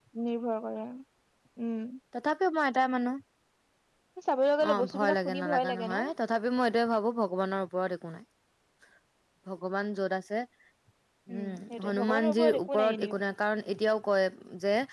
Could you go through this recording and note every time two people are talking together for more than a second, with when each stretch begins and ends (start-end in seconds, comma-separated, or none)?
4.7-6.0, 11.3-13.1